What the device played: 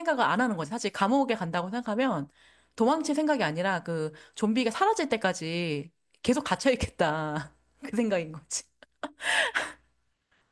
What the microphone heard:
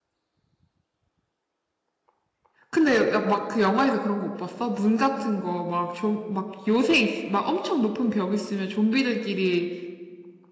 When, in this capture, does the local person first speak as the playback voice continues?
2.7 s

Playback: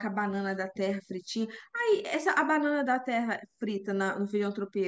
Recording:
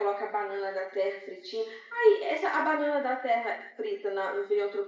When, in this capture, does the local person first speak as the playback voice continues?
none

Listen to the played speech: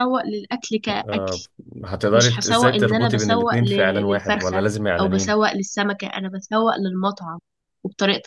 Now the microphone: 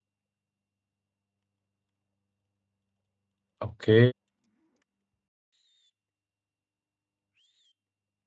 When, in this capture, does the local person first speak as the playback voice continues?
3.6 s

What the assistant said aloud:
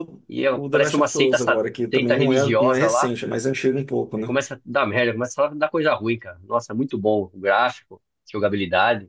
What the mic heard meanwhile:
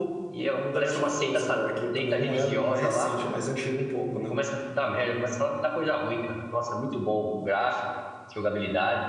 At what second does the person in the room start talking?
none

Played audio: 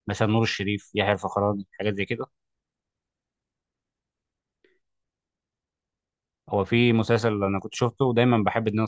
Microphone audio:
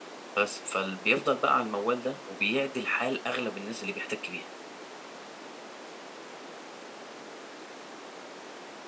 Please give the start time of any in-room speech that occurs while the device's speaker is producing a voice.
0.4 s

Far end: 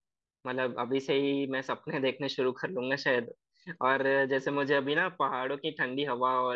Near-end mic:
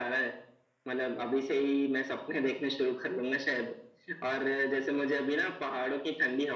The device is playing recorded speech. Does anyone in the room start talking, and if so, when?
none

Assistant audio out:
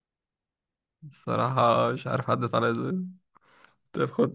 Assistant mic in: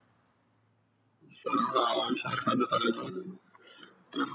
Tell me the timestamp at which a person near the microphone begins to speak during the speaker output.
none

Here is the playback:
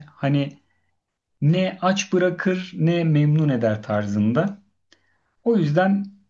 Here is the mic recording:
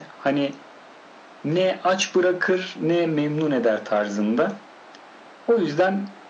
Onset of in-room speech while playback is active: none

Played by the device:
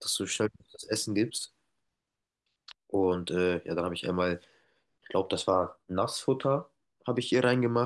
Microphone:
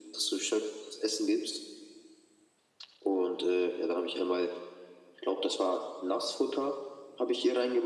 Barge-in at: none

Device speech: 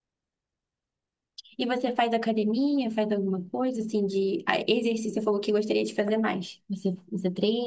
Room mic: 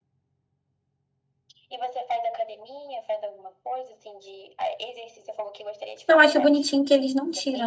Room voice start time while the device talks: 6.1 s

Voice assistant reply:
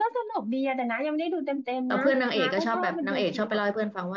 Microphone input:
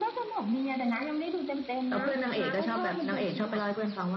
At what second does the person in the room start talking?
none

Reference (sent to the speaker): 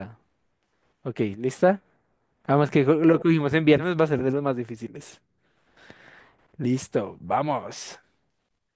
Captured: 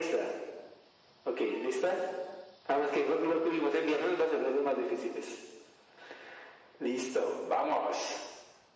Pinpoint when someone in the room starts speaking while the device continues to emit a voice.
none

